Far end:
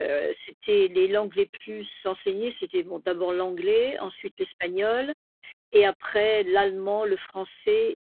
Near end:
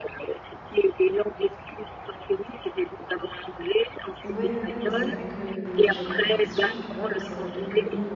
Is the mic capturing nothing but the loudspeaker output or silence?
No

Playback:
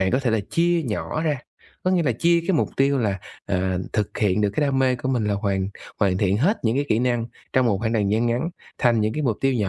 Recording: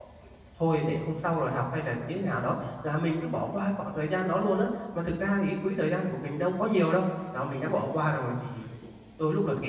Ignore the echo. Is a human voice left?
Yes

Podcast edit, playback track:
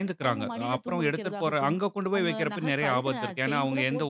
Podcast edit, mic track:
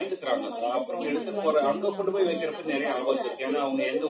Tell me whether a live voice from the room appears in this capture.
Yes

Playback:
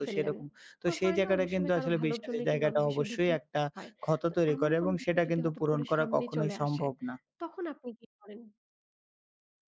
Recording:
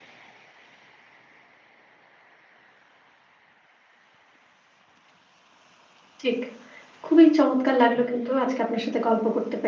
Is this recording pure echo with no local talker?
No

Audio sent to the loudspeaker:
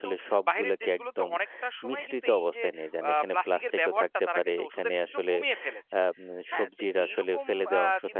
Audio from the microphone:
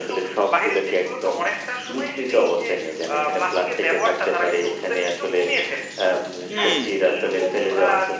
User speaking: Yes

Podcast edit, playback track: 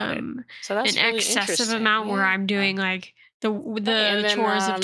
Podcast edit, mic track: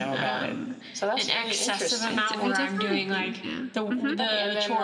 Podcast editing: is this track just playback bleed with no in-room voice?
No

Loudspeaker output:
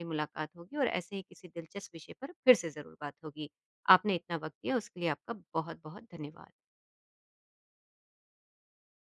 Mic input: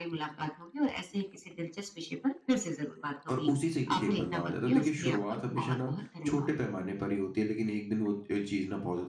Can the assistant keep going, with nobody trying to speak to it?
No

